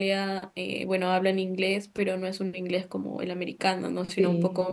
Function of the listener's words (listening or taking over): listening